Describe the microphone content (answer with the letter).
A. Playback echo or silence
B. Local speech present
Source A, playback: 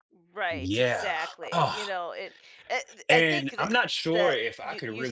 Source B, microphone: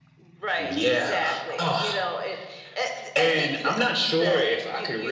A